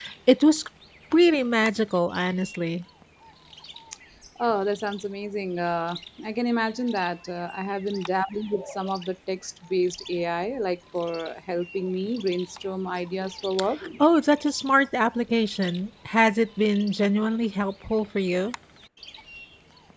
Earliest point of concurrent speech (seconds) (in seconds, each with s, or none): none